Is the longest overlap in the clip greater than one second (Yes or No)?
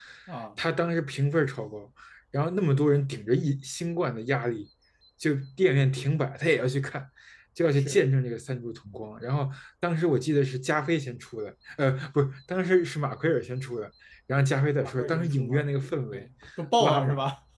Yes